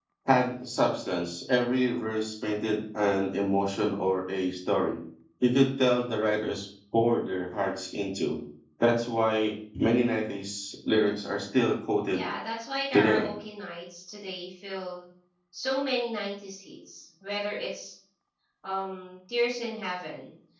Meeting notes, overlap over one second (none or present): none